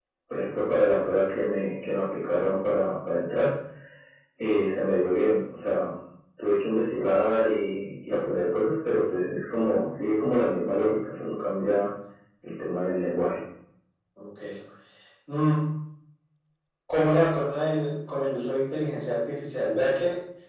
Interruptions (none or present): none